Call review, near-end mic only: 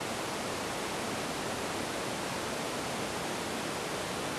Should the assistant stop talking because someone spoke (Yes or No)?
No